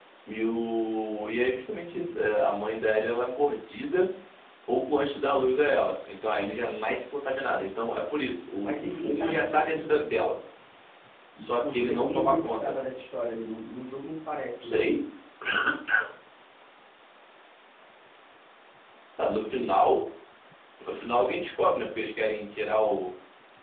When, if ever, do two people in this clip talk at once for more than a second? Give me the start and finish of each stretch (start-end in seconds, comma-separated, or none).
8.6-9.8, 11.5-12.8